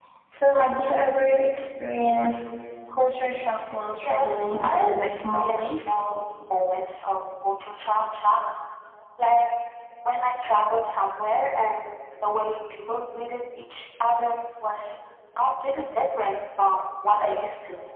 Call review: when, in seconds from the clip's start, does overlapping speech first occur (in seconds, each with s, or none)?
4.0 s